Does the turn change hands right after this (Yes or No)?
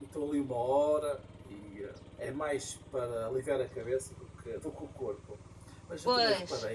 No